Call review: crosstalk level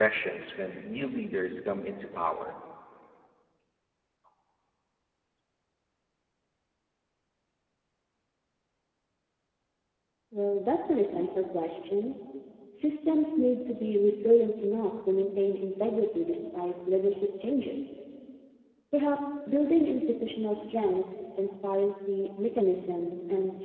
none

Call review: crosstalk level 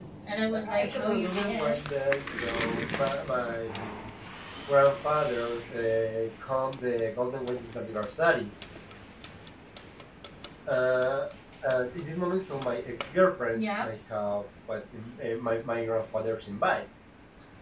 present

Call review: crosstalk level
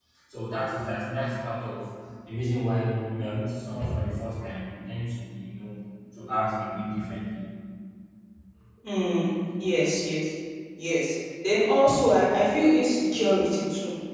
none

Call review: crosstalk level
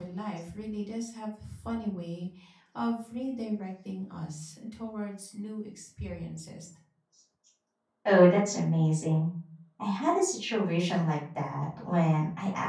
none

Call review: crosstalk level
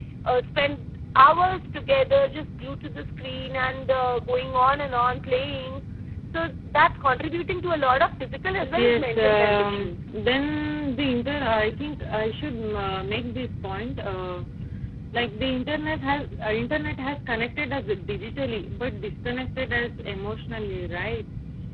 present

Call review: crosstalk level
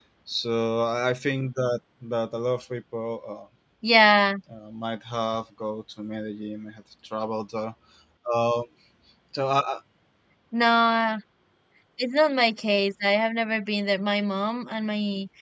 none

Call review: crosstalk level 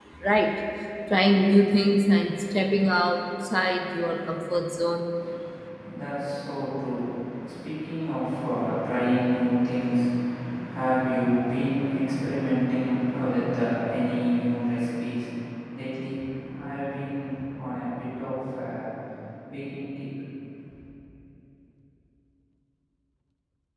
none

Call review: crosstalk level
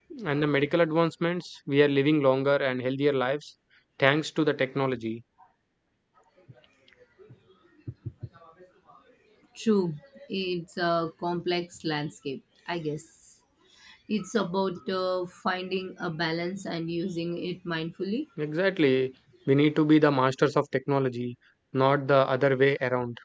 none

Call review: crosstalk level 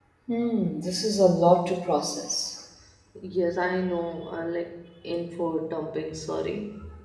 none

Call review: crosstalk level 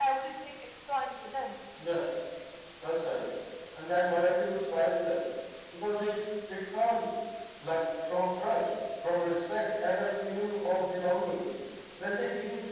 none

